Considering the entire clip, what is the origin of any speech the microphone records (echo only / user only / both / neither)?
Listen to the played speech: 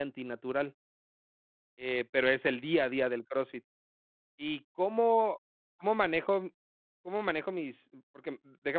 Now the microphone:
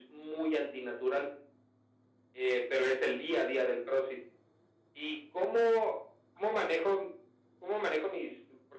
echo only